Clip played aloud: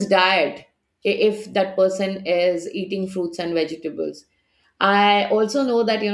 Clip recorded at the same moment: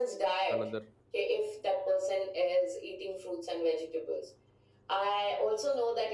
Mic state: both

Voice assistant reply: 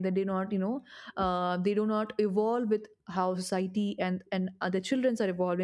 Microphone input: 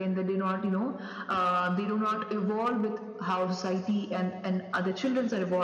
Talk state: echo only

